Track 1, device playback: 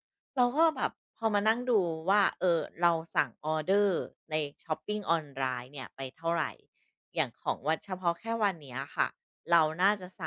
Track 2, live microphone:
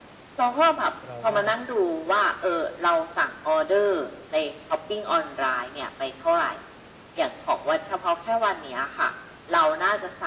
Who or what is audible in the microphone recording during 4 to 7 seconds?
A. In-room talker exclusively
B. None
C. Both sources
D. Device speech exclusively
D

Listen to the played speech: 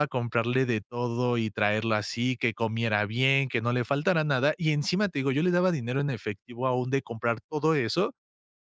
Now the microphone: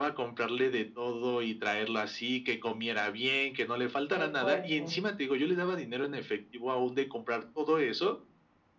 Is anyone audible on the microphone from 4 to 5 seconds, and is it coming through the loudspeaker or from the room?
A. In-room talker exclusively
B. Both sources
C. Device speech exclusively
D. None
B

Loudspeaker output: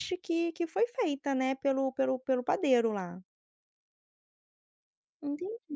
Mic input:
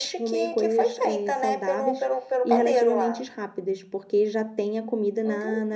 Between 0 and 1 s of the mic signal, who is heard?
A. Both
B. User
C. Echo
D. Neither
A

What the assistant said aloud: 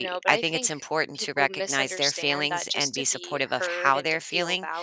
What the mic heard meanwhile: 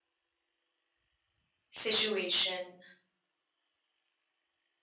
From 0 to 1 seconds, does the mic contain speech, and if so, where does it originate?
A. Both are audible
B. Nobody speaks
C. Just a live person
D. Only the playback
B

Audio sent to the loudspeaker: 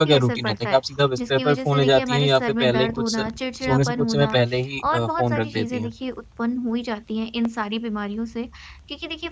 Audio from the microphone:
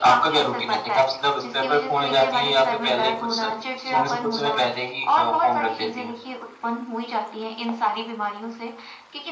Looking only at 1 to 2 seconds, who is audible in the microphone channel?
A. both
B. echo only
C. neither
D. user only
B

